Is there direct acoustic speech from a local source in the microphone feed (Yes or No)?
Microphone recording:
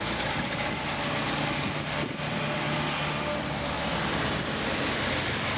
No